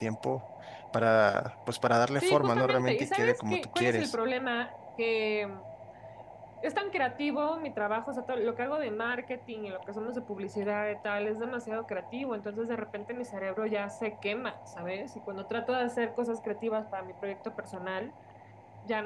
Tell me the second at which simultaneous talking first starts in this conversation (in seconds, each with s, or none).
2.2 s